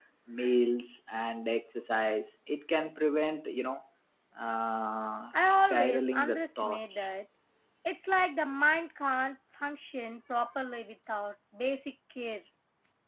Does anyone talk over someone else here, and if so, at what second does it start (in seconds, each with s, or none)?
5.3 s